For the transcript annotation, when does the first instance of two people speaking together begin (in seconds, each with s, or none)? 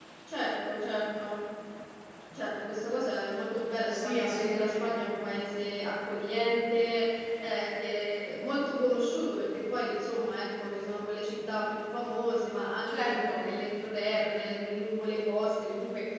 3.9 s